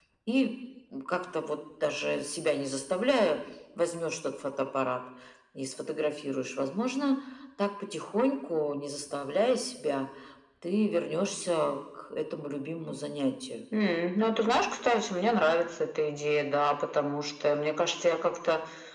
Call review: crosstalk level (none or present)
none